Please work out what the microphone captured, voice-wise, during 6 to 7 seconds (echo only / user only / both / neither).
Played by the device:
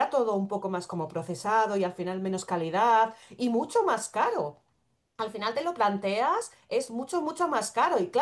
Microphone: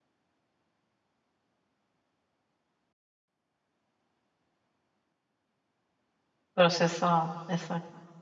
user only